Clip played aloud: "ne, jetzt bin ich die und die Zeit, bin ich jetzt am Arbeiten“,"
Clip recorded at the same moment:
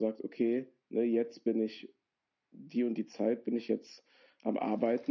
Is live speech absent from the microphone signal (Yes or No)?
Yes